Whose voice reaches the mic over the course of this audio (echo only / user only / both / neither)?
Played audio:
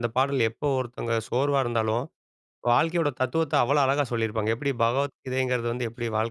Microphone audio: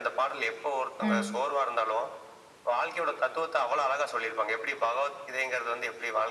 both